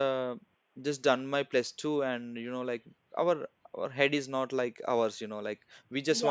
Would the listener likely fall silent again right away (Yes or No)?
Yes